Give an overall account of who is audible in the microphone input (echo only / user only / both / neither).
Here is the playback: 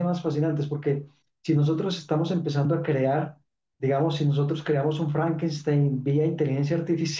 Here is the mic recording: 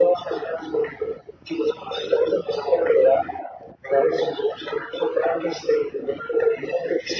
echo only